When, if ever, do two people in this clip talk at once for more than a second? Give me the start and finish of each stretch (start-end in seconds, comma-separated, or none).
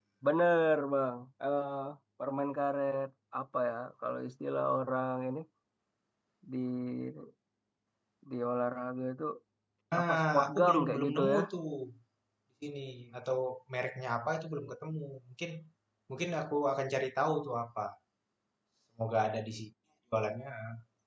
10.0-11.4